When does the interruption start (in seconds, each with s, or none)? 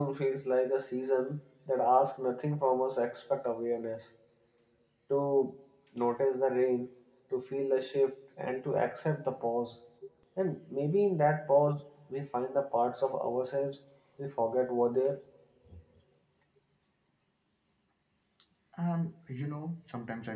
none